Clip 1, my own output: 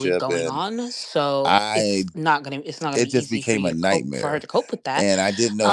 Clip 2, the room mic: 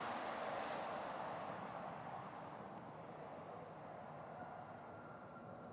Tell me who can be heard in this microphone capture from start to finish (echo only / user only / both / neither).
neither